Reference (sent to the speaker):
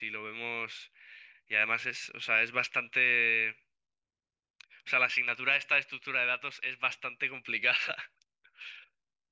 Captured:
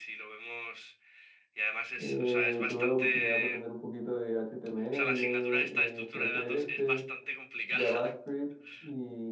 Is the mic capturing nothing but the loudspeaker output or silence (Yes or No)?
No